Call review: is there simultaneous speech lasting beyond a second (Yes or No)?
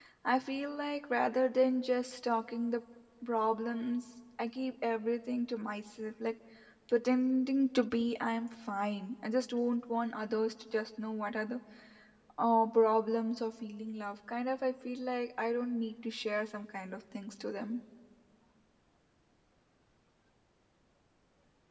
No